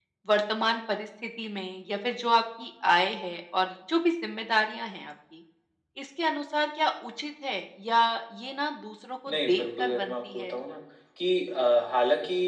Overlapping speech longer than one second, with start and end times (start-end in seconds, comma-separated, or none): 9.3-10.5